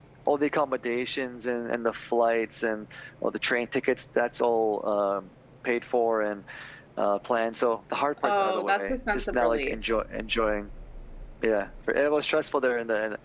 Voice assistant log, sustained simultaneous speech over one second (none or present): present